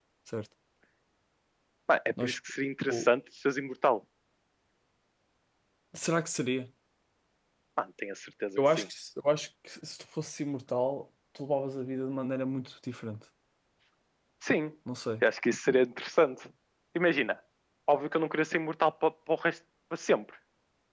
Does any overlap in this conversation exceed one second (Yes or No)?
No